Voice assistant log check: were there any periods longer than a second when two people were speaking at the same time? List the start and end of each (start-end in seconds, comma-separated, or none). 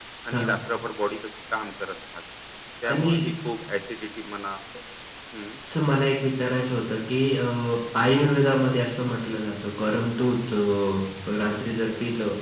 none